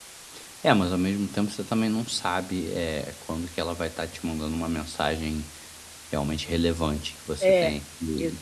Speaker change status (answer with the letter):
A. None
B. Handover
B